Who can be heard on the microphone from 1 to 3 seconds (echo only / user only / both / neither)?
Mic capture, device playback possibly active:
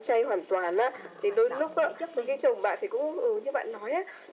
both